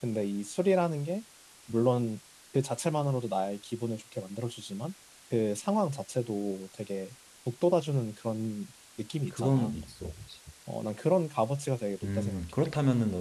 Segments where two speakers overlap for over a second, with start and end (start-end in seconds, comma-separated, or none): none